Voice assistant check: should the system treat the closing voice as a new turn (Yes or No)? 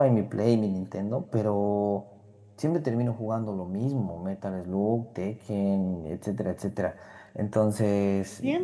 Yes